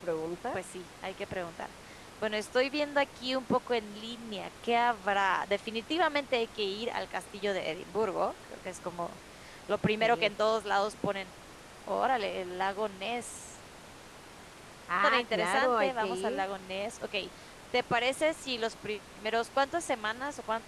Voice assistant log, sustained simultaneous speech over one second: present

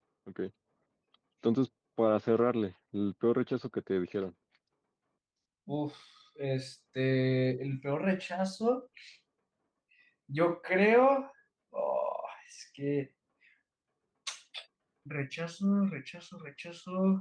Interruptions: none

